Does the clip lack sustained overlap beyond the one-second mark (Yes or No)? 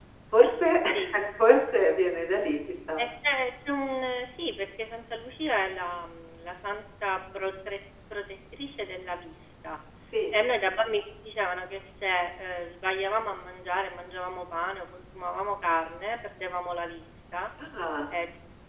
Yes